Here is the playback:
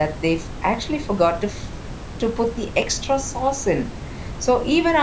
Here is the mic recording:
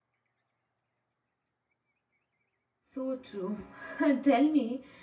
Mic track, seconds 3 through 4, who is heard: user only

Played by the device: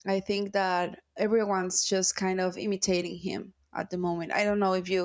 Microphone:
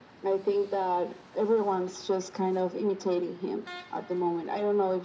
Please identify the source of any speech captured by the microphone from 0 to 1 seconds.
echo only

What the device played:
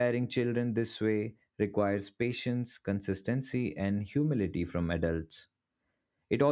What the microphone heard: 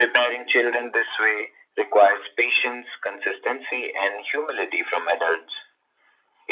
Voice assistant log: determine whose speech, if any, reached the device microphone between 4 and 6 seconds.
echo only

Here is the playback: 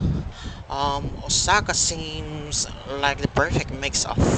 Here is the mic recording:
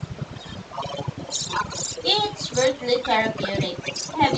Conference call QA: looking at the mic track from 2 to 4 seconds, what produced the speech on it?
both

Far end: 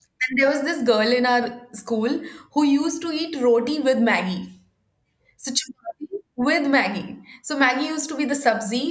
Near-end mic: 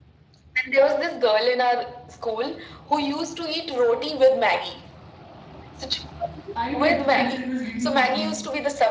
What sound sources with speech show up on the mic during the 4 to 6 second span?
echo only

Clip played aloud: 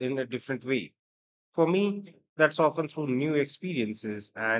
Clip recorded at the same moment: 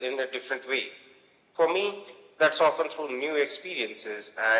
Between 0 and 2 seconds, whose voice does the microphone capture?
echo only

